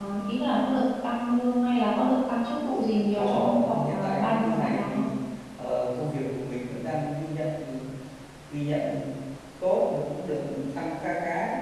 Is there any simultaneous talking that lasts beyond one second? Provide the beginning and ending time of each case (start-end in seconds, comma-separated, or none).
3.2-5.0